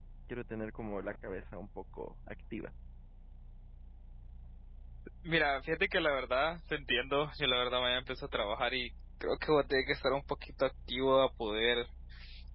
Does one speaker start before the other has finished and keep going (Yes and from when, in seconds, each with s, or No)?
No